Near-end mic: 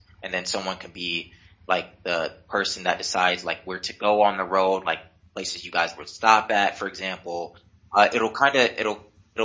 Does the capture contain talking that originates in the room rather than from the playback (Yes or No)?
Yes